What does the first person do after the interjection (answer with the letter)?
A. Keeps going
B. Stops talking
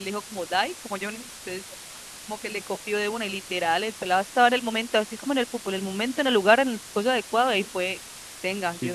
B